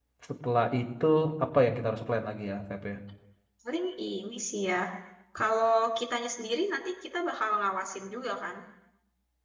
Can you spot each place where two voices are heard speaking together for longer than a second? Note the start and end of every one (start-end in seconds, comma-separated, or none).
none